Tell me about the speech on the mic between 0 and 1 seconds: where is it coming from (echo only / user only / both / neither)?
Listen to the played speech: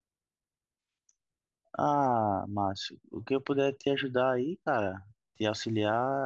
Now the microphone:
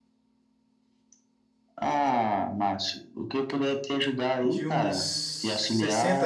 neither